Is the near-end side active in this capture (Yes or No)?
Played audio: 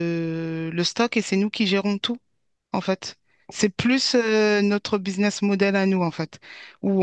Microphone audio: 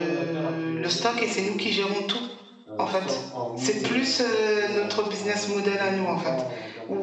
Yes